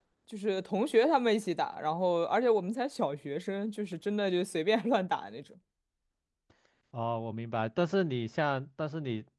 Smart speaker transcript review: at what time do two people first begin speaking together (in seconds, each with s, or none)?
none